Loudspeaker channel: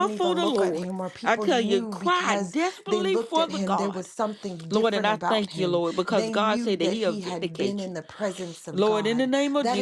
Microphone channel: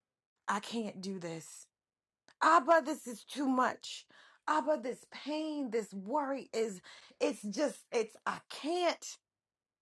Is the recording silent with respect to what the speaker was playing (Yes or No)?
Yes